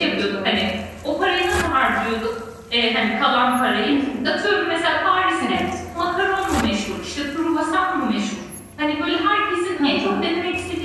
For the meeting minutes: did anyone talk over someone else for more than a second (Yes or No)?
No